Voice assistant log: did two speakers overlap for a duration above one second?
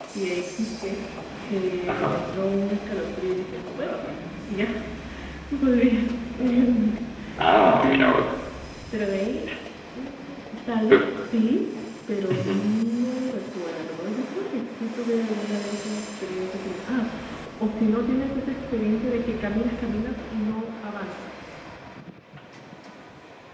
No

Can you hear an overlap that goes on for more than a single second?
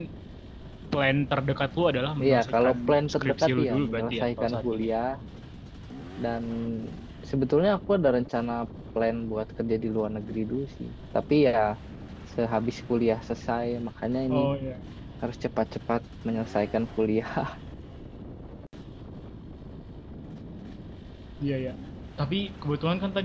Yes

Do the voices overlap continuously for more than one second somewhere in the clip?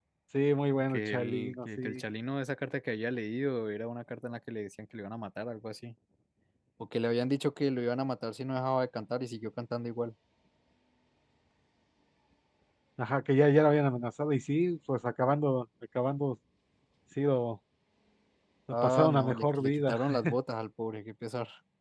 Yes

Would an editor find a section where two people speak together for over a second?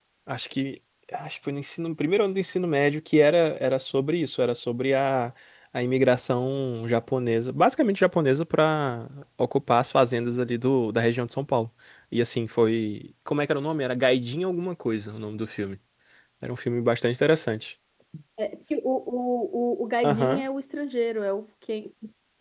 No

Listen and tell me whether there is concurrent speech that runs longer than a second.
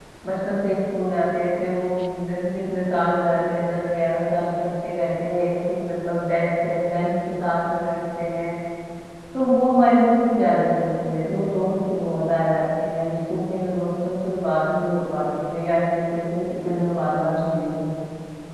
No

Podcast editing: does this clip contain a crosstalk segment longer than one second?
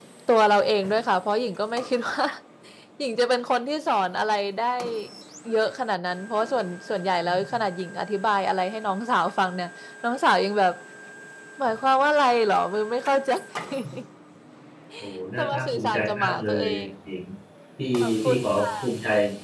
Yes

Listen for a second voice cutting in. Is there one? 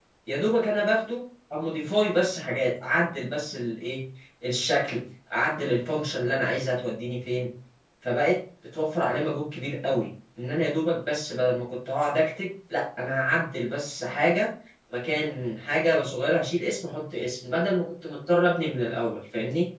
No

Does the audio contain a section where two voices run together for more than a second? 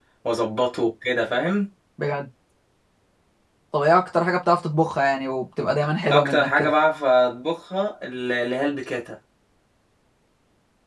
No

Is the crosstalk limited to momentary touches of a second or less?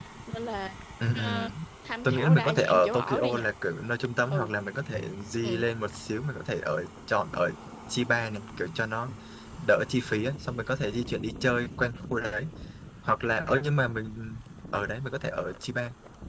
No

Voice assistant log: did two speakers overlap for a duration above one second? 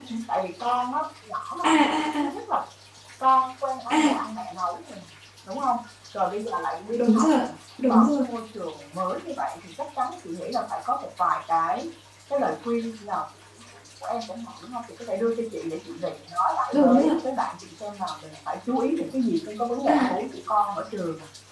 No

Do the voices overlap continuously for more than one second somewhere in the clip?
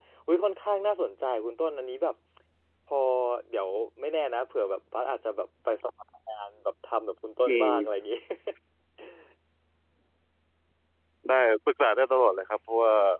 No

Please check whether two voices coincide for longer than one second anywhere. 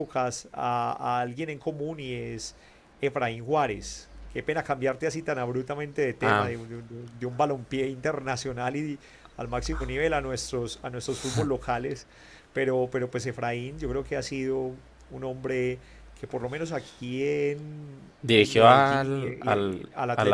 Yes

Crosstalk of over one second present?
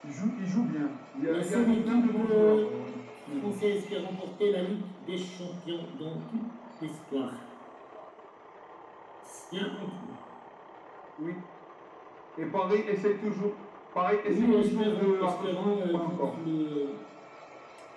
Yes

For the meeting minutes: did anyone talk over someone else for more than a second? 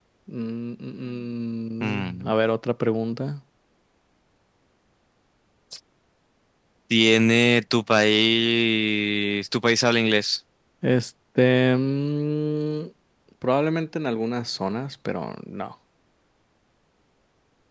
No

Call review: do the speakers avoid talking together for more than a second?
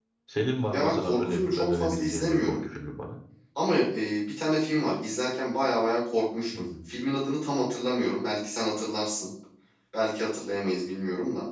No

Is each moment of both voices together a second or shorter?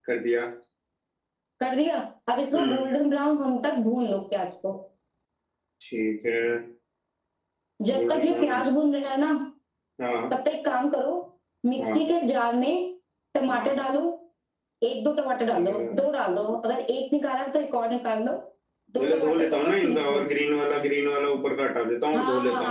No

